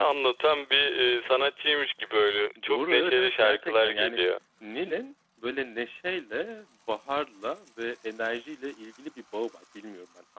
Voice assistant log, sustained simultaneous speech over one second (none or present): present